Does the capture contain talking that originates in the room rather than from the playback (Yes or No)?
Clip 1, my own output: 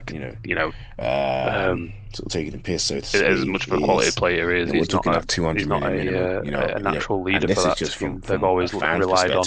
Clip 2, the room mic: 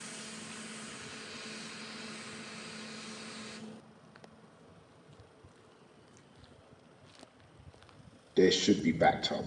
Yes